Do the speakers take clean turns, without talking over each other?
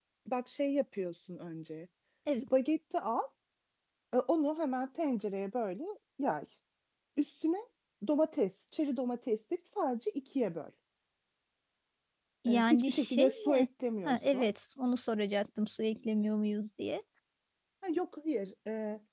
No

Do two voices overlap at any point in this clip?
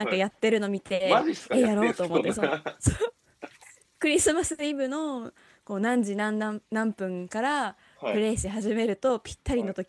Yes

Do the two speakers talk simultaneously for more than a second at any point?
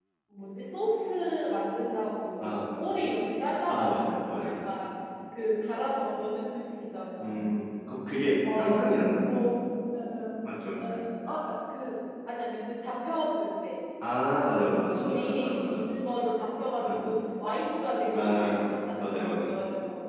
Yes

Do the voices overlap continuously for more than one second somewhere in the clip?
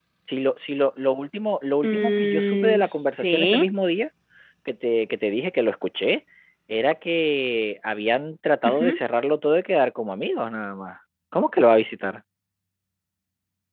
Yes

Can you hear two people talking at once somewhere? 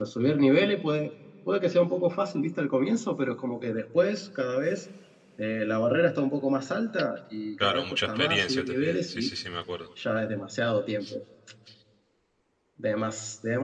Yes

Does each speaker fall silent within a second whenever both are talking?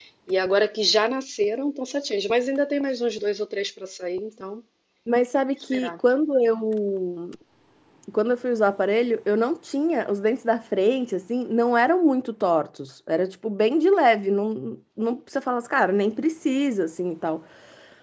Yes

